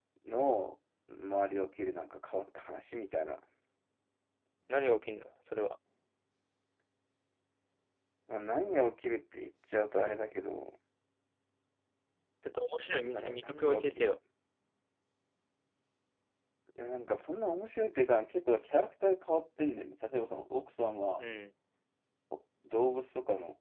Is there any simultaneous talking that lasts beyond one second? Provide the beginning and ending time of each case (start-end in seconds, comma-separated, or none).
12.8-14.2